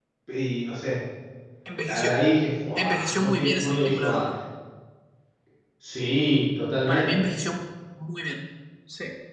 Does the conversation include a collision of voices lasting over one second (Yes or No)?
Yes